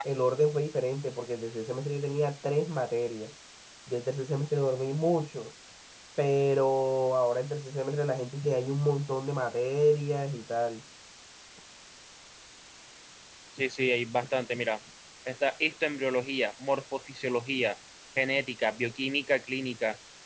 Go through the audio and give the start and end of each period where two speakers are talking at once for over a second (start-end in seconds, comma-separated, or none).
none